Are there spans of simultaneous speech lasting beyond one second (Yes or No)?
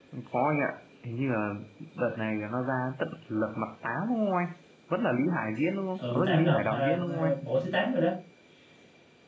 Yes